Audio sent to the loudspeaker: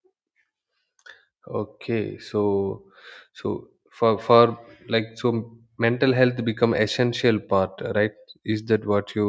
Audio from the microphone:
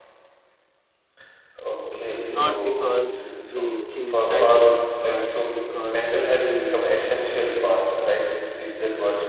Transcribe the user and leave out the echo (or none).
uh, not because they chase titles, but because they